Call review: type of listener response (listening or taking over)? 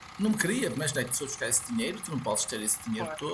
listening